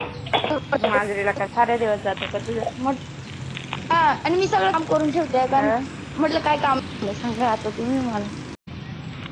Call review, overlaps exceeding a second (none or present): none